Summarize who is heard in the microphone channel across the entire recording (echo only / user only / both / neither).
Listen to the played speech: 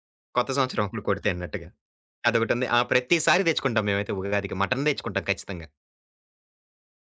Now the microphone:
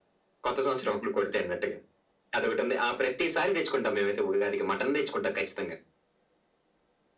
echo only